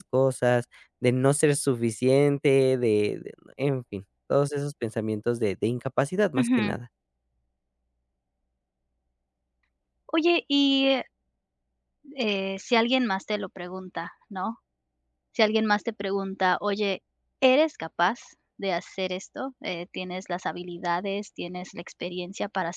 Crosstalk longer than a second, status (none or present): none